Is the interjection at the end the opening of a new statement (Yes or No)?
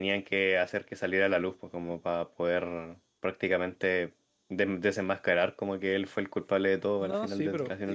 Yes